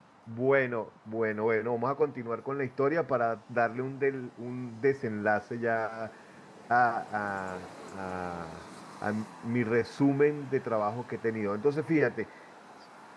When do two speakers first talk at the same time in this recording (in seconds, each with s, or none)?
none